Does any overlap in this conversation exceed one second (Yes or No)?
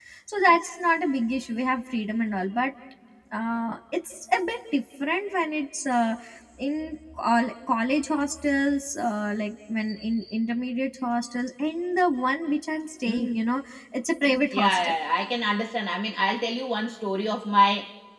No